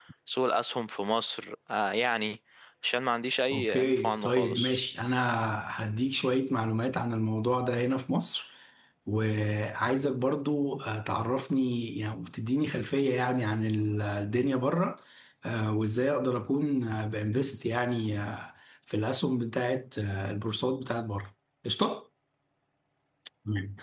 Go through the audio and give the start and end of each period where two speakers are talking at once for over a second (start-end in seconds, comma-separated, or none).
3.5-4.8